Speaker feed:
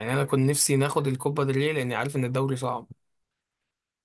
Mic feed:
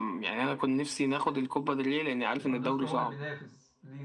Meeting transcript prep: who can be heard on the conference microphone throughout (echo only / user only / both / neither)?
both